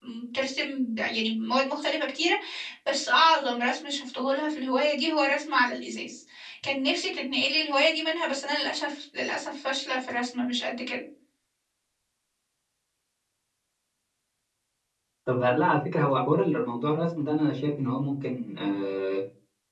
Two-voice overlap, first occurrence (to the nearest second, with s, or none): none